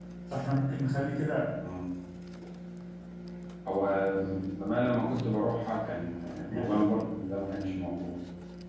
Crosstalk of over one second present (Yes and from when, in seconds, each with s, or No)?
No